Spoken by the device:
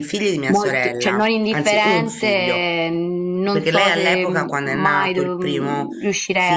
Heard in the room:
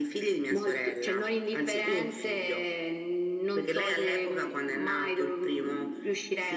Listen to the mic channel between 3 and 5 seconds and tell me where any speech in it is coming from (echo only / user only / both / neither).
echo only